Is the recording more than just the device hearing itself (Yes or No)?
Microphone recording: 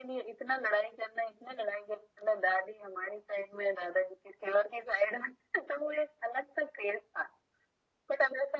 No